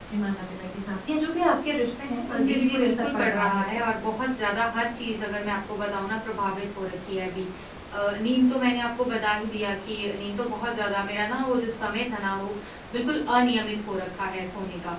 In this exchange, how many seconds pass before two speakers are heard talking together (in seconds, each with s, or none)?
2.3 s